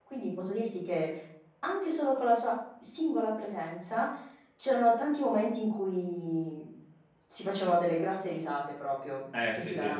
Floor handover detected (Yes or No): Yes